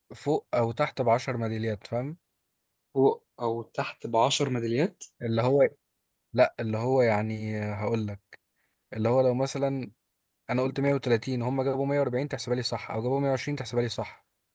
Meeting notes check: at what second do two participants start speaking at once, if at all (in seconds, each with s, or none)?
none